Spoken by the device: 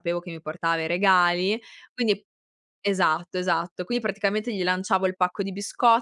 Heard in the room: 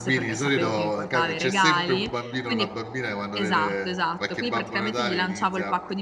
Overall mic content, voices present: both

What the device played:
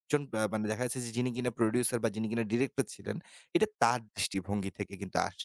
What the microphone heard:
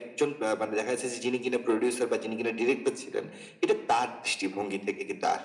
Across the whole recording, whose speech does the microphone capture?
echo only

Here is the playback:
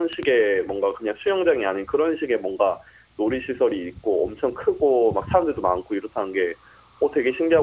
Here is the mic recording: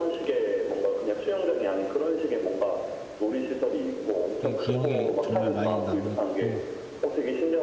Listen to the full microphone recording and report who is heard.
both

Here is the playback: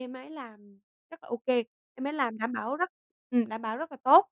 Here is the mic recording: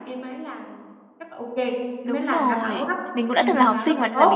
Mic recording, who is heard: both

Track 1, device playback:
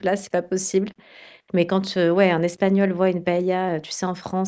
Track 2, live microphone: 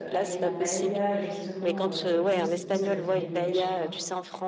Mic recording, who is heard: both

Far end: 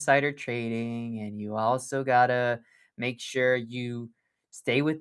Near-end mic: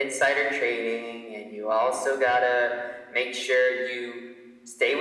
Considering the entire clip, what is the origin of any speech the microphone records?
echo only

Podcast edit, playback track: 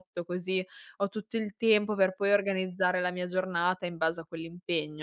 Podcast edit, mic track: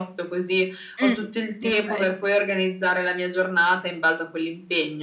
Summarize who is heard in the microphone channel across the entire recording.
both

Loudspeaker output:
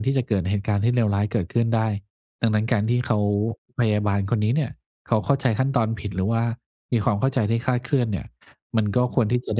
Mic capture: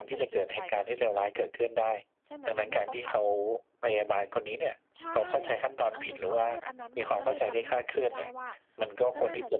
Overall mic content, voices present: both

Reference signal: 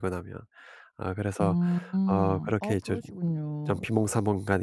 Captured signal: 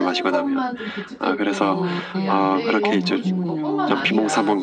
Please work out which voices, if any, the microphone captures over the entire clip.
both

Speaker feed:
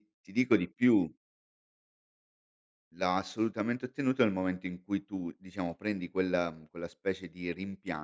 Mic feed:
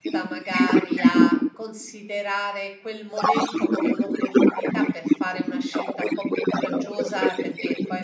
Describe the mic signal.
both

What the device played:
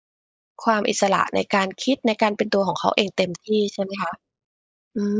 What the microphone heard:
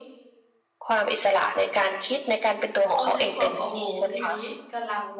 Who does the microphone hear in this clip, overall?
both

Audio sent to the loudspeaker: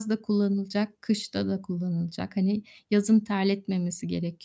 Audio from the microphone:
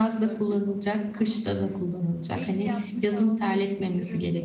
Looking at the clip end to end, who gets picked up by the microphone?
both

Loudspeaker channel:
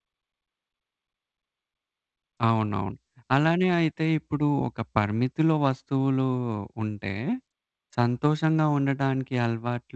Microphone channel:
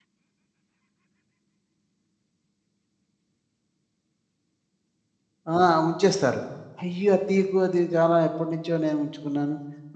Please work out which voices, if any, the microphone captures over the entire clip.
user only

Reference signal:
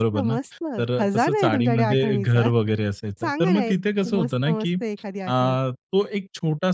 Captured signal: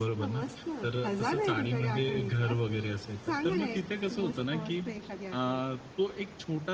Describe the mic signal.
echo only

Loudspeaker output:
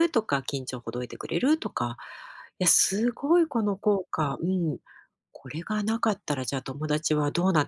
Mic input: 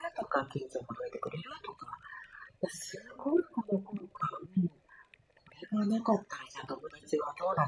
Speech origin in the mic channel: echo only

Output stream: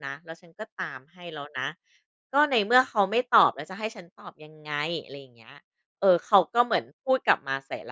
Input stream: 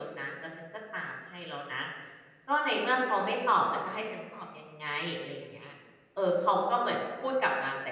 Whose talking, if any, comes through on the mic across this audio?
echo only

